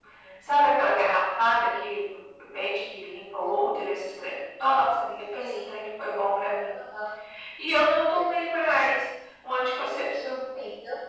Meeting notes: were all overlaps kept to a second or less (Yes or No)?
Yes